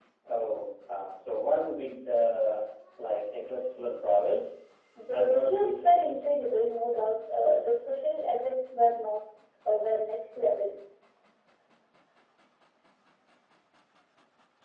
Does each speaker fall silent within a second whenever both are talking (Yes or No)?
No